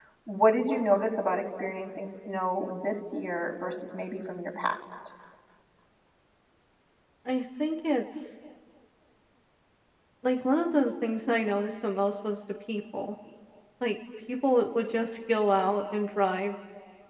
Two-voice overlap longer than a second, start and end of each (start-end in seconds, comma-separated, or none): none